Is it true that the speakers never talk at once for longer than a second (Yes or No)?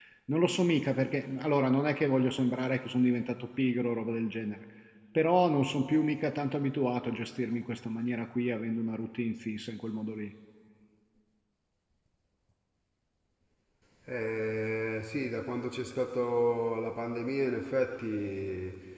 Yes